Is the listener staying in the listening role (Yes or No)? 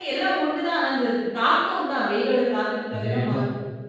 No